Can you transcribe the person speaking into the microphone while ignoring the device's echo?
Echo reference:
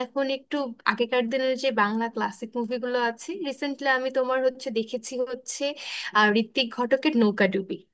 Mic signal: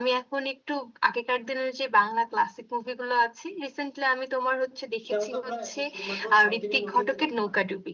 সেটা হয়তো আমরা এখন শুধুমাত্র সাউথ ইন্ডিয়ান মুভিগুলোতে দেখতে পাই

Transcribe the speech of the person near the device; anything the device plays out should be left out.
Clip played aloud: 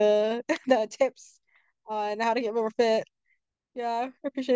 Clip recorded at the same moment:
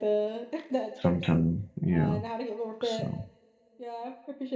sometimes. Yeah. So

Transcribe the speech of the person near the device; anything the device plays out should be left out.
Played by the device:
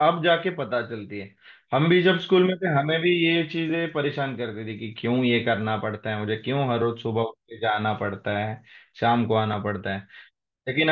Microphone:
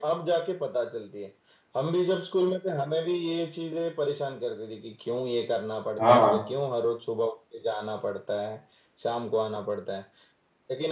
हाँ

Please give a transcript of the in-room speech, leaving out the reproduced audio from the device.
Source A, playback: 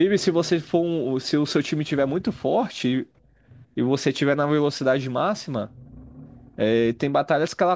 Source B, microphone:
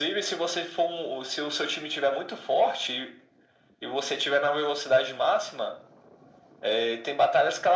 none

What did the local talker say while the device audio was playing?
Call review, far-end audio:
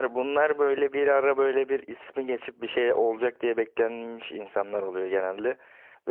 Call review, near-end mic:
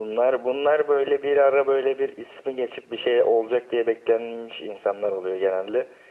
none

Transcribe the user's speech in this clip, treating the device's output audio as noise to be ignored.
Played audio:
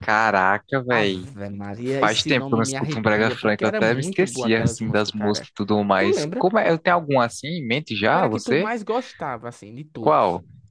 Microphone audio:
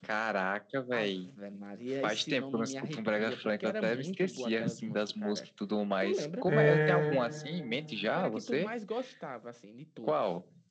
É...

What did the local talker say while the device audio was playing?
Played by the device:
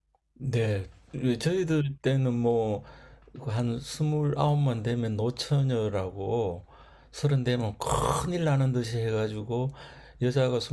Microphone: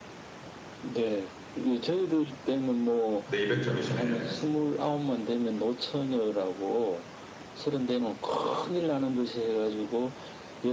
네, 200점이시네요.

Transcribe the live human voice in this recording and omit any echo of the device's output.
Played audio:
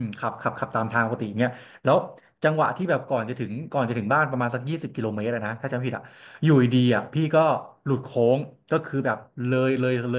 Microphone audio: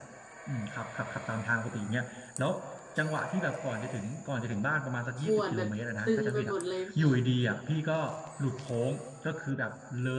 ปวดแบบตึงไปหมดเลยแผล

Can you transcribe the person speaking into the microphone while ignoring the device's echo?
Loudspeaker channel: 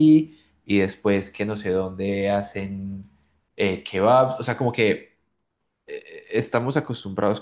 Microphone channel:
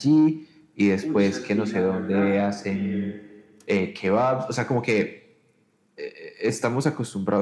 Uy, Santi, la verdad, eh,

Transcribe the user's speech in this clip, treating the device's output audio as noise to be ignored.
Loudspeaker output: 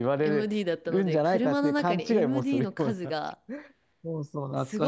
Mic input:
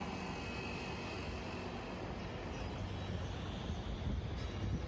none

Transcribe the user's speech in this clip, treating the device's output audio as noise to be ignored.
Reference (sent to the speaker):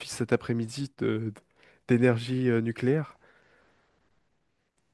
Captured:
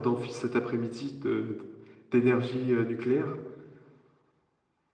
none

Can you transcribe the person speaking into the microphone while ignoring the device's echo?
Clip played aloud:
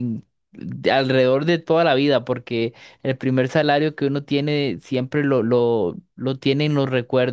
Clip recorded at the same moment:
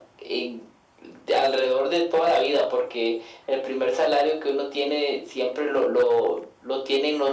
none

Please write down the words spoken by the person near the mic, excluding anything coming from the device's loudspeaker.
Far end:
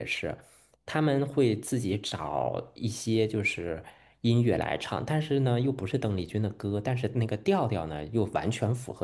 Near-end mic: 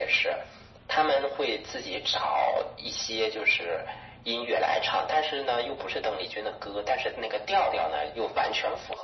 none

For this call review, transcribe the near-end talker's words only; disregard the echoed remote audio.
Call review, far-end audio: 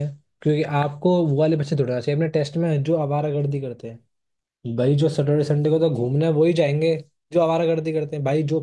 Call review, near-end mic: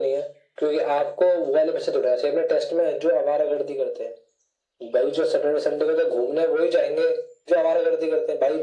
none

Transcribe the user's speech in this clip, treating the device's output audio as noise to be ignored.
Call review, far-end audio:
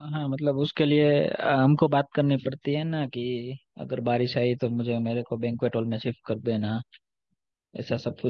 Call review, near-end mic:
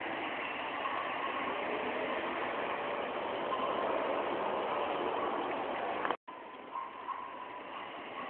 none

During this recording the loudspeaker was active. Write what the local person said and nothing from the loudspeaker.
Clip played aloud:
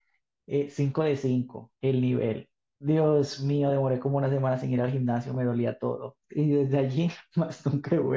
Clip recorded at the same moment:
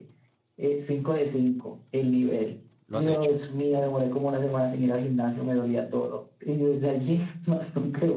¿Lo has hecho?

